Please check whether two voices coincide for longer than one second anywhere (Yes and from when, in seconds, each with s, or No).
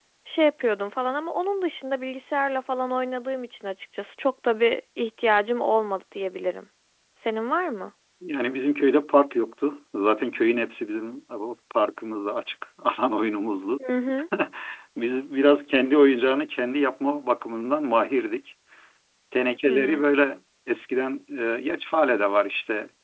No